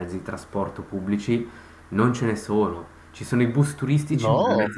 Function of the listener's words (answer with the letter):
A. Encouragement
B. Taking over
A